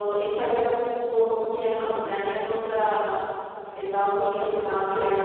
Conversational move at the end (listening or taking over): listening